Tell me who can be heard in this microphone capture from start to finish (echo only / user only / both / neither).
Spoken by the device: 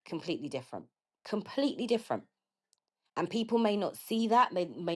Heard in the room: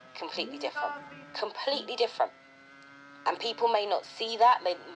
both